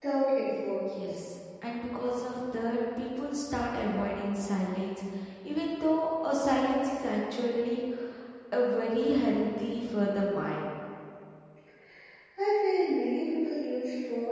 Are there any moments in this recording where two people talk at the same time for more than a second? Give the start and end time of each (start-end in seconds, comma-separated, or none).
none